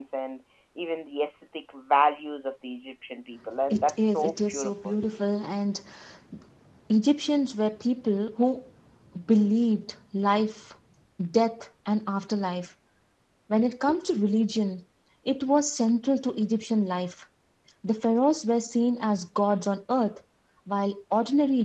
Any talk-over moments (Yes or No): Yes